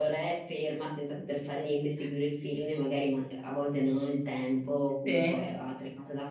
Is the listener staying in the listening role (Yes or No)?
Yes